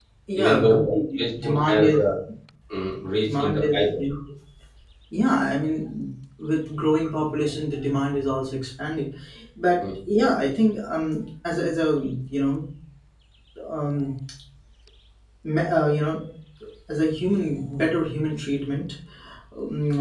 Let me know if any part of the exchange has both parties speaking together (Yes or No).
Yes